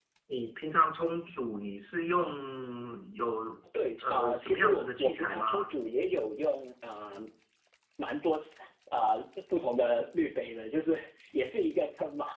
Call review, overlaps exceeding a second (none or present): present